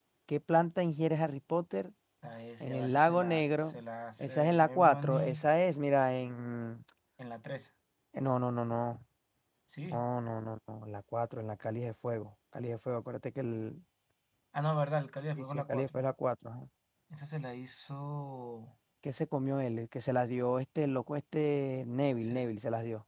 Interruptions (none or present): present